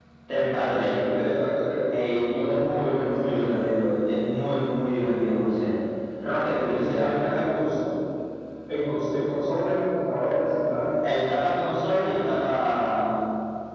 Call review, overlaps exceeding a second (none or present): present